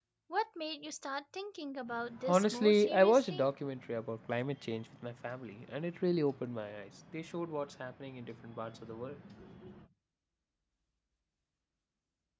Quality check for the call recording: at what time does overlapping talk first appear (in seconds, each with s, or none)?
2.1 s